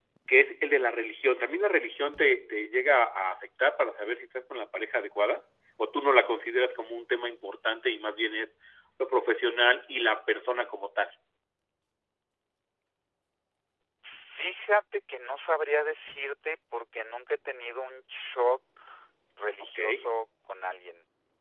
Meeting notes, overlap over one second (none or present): none